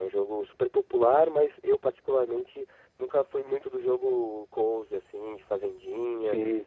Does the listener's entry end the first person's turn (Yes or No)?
No